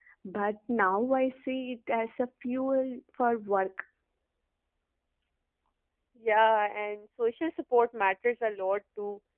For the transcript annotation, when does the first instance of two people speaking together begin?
none

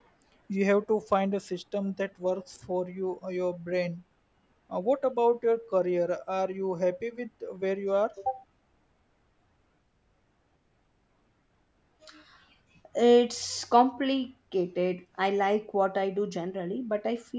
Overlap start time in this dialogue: none

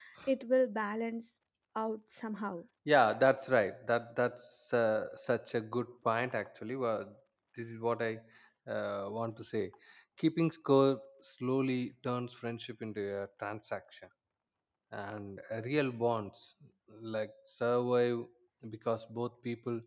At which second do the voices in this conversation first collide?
none

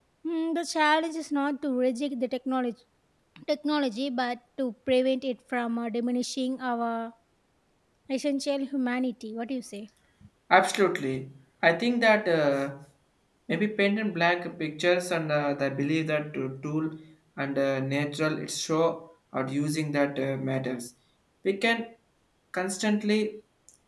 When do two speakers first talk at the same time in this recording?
none

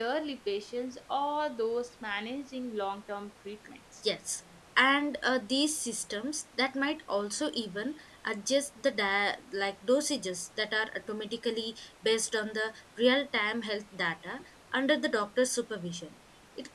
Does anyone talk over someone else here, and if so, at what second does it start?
none

